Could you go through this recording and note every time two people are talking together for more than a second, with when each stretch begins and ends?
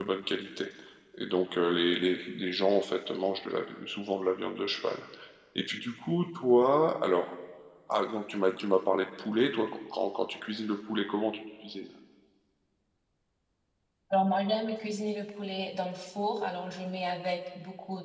none

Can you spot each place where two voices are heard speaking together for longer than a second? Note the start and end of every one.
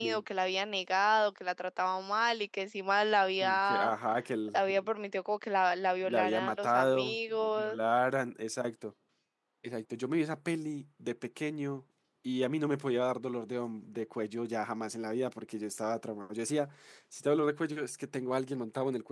6.0-7.8

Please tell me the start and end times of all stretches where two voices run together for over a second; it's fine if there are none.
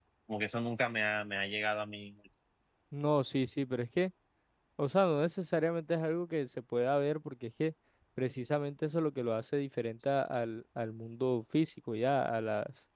none

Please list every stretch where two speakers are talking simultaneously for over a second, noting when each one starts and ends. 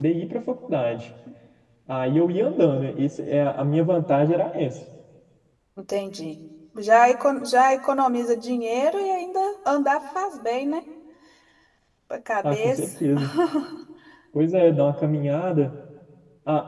none

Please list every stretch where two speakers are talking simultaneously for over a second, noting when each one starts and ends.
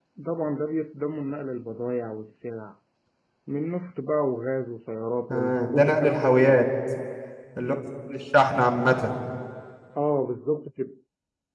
5.3-6.6

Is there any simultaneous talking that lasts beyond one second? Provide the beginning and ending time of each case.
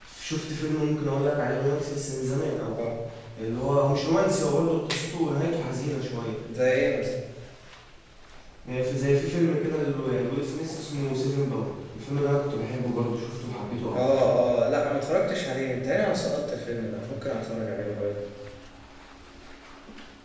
none

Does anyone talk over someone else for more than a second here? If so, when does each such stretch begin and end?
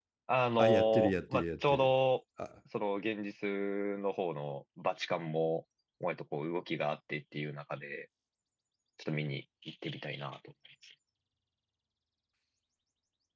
0.6-1.9

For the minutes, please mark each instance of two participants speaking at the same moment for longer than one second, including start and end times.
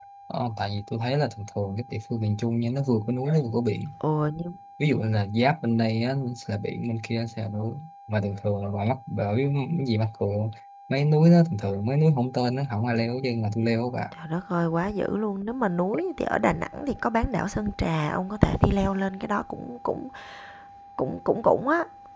none

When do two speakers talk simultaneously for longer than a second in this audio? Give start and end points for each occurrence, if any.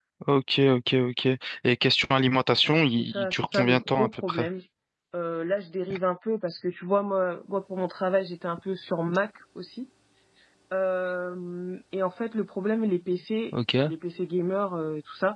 2.6-4.5

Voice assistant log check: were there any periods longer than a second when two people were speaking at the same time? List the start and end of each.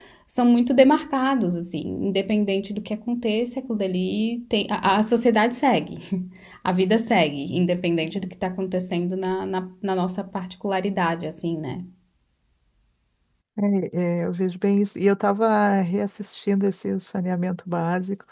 none

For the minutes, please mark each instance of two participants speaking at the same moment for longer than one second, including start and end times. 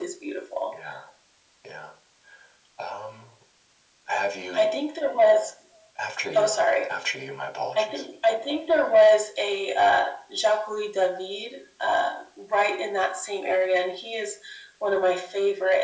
none

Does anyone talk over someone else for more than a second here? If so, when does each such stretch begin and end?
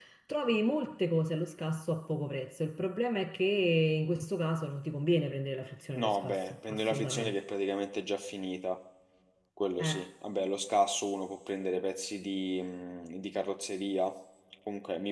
6.0-7.4

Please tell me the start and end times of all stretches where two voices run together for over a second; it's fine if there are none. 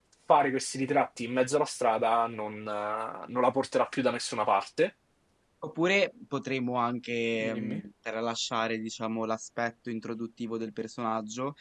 none

